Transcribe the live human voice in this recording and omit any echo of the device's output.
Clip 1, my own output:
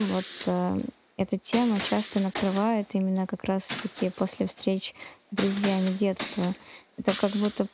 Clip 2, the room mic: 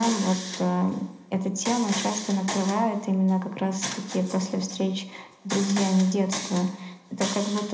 none

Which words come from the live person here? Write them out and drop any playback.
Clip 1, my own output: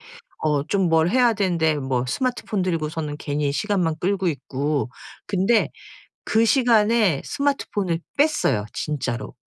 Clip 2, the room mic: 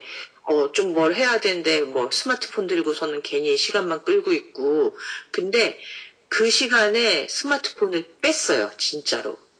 none

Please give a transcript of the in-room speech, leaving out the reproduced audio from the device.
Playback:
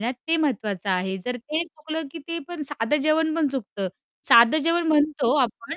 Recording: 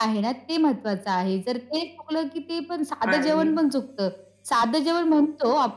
आणि

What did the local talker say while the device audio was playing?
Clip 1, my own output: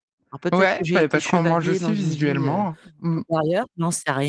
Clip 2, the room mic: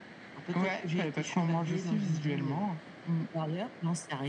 none

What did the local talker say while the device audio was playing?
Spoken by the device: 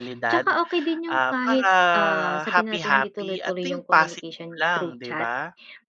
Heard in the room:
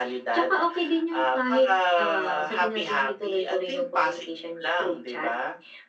none

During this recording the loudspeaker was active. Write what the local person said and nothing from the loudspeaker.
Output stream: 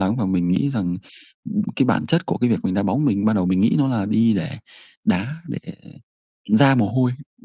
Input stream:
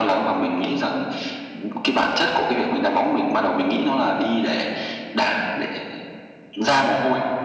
none

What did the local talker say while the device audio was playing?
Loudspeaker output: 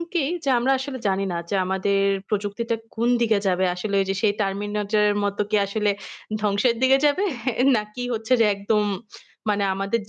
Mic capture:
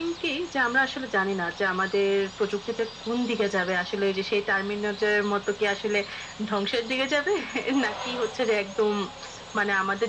none

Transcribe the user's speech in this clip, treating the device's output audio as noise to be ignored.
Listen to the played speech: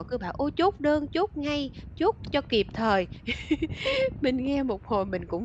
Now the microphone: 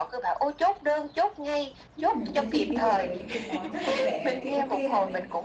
Ừm, thế thì bây giờ với những cái món rất là rẻ đấy thì OK là mình,

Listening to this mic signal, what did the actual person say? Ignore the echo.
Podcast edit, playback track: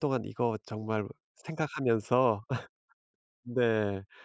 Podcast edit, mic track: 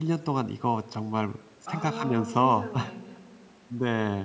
아 세상에.

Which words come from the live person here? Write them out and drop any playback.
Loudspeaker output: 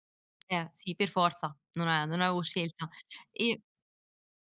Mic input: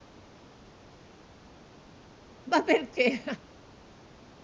Ma perché?

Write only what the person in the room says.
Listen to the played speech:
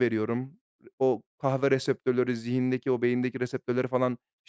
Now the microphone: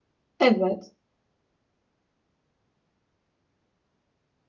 Evet.

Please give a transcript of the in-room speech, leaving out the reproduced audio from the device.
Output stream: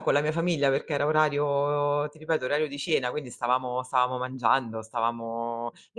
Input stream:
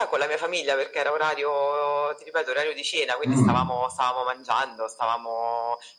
Mh.

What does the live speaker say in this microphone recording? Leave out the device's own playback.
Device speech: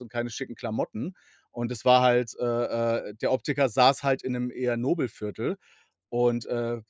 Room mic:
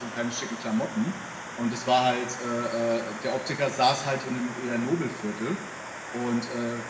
none

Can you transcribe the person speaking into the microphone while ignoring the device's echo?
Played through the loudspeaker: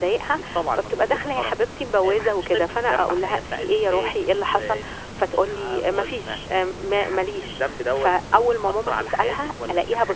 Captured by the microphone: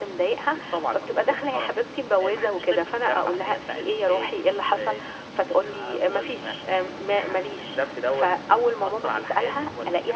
none

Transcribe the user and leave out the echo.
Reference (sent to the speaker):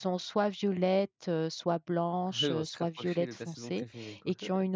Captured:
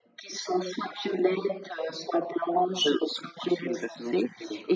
none

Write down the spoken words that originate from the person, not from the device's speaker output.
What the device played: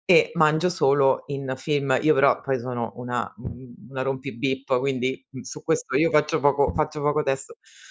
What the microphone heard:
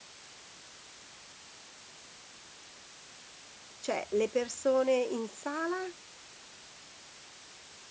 Cioè le persone in sala?

